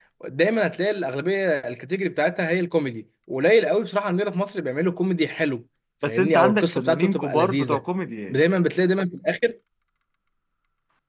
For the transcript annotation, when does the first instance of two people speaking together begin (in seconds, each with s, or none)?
6.0 s